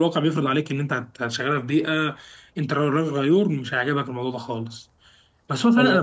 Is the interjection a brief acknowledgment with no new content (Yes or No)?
Yes